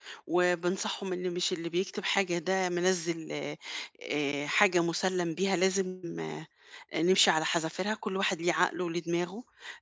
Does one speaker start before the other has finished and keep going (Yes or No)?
No